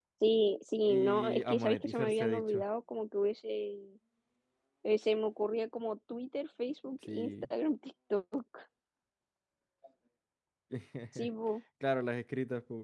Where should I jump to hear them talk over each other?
0.9 s

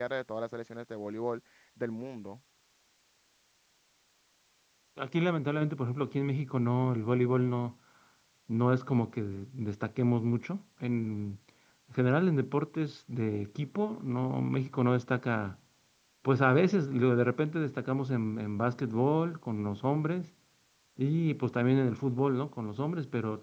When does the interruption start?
none

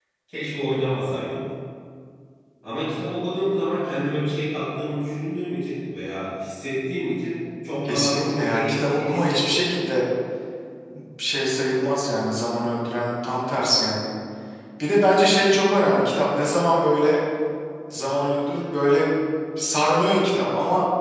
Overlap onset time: 7.8 s

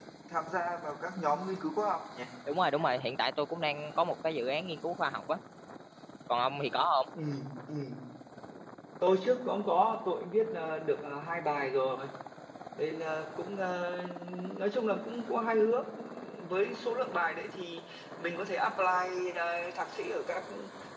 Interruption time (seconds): none

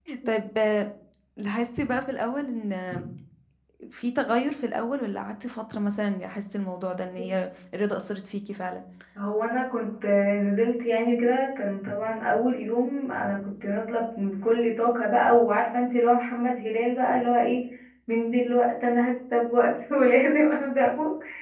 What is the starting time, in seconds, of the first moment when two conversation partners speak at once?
none

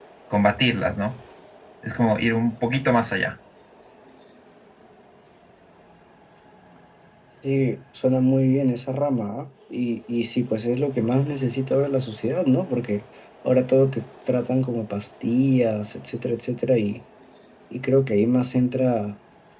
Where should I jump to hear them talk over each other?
none

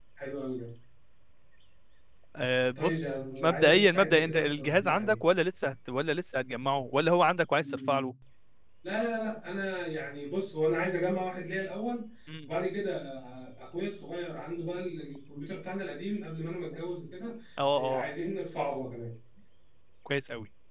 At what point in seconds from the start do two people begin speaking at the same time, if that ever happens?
2.8 s

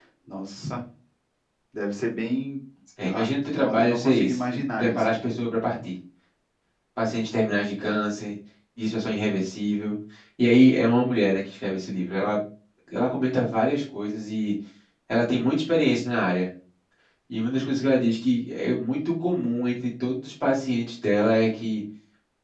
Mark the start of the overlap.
3.0 s

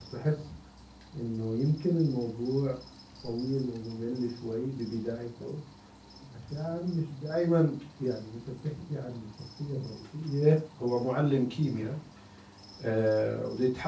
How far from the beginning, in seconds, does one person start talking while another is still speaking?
none

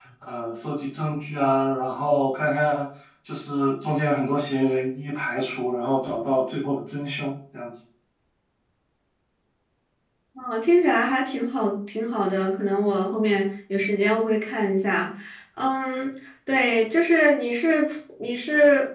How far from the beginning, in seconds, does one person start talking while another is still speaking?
none

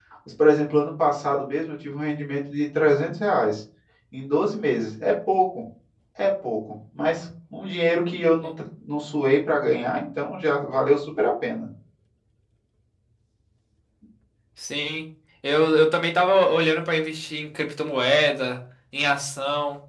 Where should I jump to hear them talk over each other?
none

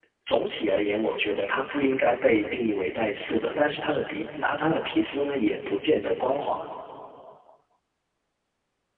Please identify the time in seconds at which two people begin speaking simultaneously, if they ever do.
none

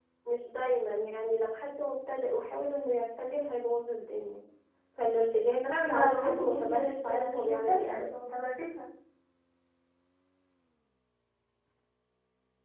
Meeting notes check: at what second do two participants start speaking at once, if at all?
5.6 s

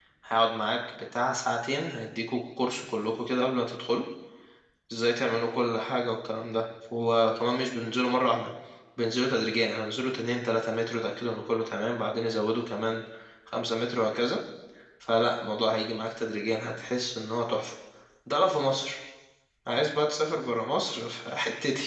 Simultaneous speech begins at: none

